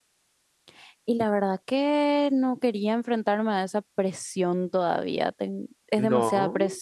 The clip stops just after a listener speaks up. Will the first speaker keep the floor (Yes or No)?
Yes